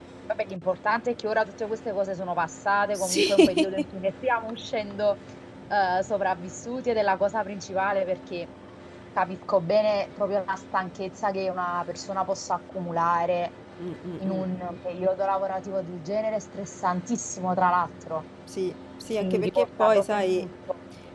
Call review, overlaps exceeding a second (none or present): present